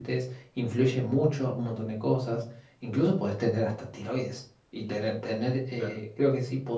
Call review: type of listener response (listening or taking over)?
listening